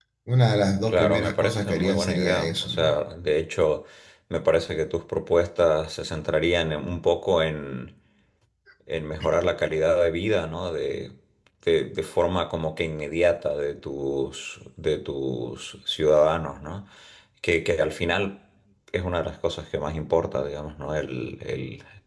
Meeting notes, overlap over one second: present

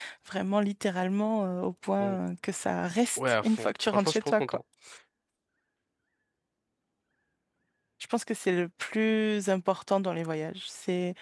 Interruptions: present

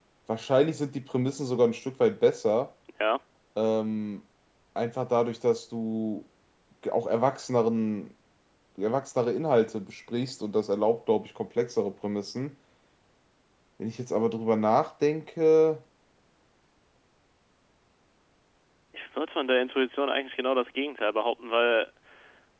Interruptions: none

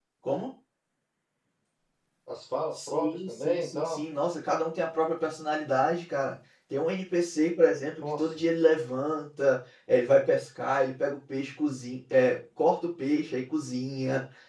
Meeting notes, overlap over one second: present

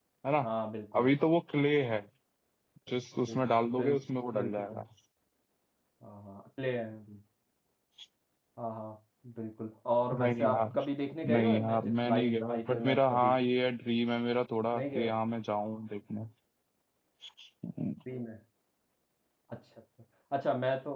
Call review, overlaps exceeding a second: present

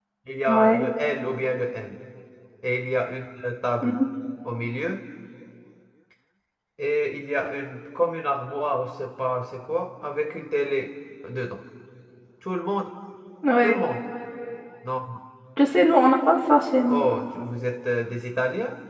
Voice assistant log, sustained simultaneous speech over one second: none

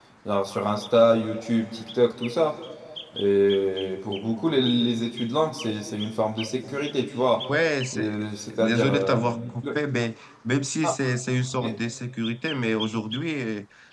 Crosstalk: present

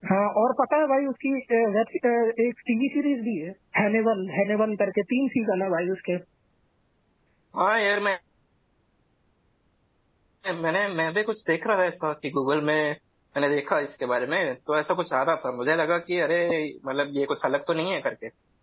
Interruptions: none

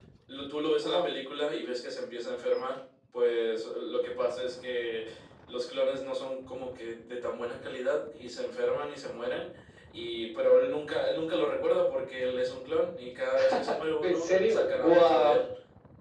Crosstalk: present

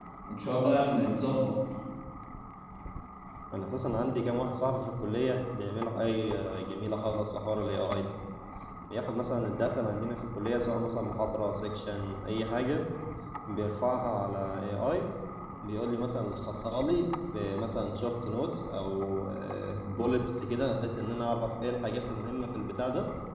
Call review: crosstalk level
none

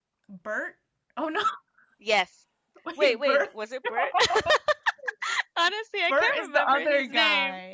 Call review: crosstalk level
present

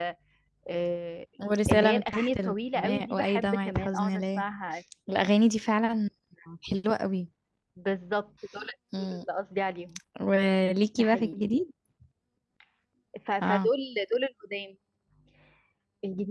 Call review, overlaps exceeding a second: present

